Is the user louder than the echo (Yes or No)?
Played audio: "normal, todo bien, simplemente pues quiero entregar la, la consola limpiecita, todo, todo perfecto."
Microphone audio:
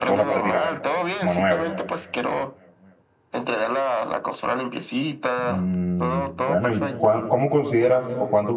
Yes